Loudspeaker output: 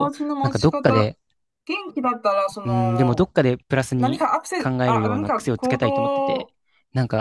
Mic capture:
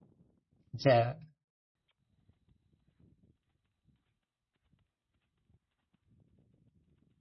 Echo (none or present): none